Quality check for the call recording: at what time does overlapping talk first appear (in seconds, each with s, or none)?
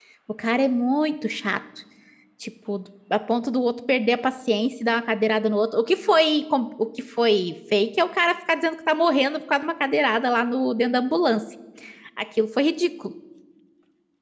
none